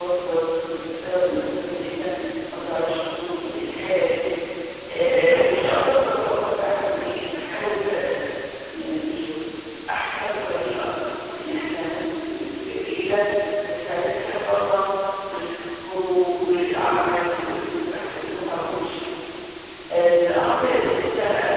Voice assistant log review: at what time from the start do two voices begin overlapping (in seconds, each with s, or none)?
none